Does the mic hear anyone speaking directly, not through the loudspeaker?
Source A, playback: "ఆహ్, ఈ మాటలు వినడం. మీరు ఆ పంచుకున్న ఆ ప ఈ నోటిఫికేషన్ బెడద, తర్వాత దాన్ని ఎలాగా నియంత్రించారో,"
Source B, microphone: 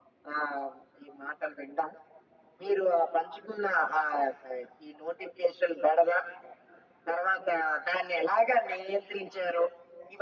No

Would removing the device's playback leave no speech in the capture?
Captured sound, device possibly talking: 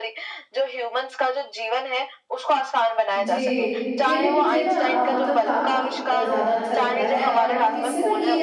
No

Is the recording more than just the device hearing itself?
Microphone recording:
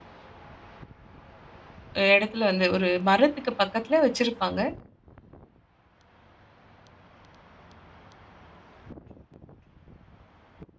Yes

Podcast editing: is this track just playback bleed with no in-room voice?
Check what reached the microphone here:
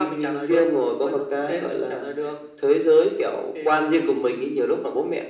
Yes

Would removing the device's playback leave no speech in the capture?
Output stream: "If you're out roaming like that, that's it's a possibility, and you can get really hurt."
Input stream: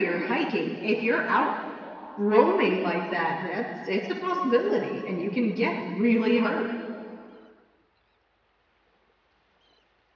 Yes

